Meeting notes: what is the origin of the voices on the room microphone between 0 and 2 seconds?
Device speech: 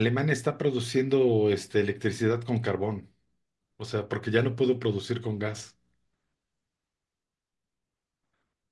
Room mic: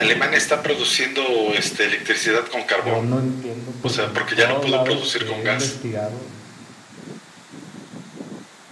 echo only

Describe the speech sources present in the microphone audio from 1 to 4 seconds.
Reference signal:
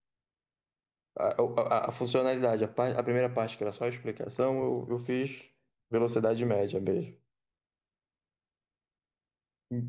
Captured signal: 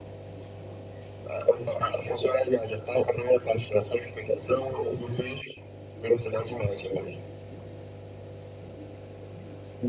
echo only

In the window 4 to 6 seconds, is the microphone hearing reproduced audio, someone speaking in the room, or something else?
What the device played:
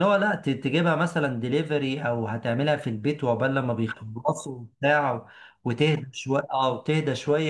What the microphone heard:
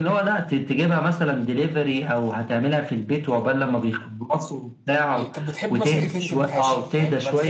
both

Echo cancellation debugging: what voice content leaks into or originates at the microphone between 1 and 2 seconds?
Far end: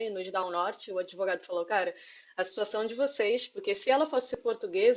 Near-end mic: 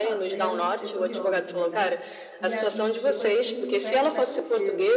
both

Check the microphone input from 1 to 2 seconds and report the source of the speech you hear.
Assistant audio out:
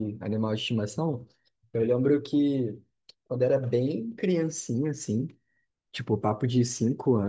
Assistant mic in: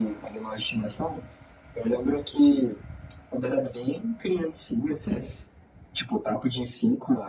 echo only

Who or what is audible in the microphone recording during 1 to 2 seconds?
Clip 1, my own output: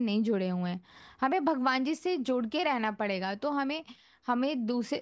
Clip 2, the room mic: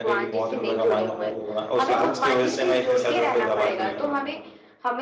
both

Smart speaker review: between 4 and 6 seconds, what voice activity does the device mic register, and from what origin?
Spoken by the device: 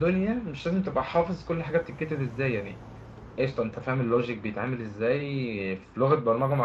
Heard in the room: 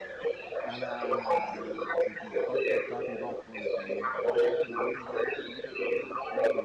both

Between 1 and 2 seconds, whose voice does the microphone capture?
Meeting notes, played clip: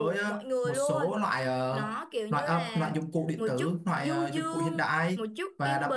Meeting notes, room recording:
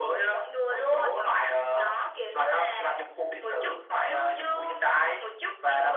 echo only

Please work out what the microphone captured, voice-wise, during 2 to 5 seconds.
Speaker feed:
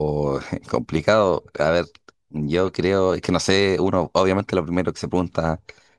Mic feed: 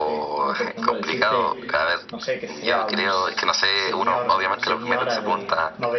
both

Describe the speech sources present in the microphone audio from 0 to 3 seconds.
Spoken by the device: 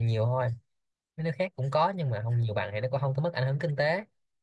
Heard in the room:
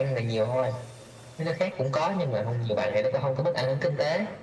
echo only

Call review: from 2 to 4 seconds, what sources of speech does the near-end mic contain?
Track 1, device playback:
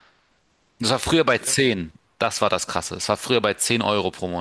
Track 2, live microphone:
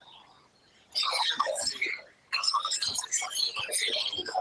echo only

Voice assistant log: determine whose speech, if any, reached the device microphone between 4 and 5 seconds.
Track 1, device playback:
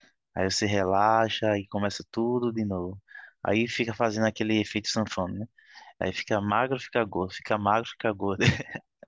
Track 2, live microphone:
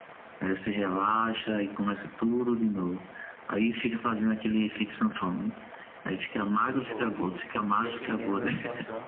echo only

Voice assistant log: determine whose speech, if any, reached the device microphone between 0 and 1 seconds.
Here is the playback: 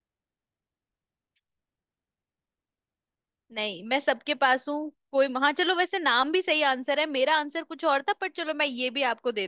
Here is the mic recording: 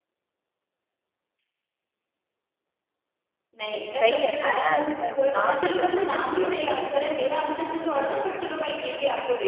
neither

